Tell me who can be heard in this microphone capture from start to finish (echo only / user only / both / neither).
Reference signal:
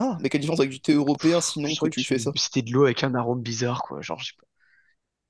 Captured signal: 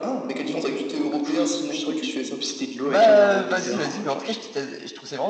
both